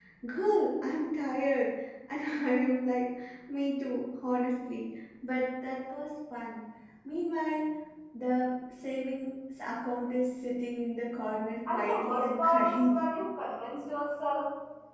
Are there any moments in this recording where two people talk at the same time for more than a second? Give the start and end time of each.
11.7-12.9

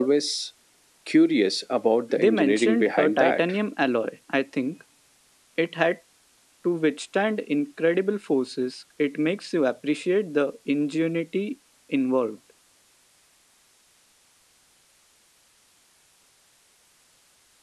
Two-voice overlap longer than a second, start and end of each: 2.2-3.4

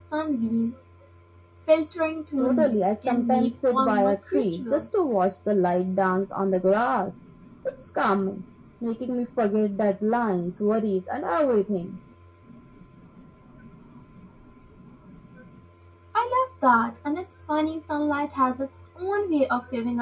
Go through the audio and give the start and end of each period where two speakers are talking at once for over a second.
2.4-4.8

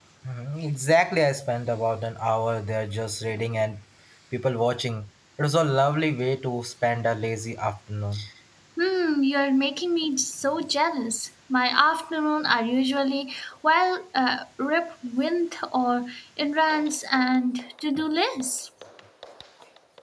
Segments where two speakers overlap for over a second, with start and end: none

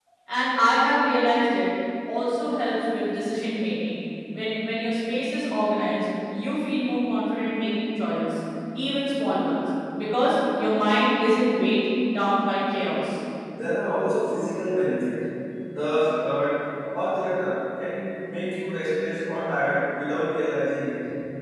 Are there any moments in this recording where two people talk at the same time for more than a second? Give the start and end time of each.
none

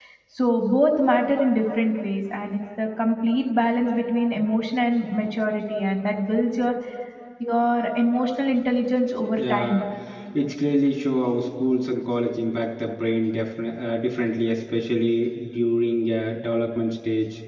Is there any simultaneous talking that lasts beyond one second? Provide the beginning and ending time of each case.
none

